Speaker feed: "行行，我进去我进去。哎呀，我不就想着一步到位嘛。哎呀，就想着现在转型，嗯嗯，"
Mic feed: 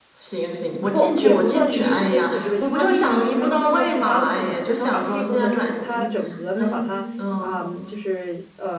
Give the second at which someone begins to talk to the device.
0.9 s

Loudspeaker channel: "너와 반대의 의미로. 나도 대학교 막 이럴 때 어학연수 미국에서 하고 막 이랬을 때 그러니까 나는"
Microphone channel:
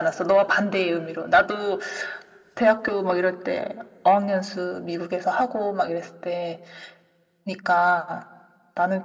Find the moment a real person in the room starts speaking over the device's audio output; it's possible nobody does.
none

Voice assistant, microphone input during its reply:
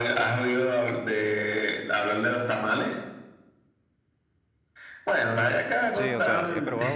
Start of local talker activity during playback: 5.9 s

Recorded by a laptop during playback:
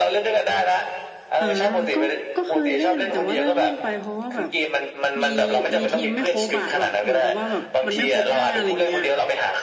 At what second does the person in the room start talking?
1.4 s

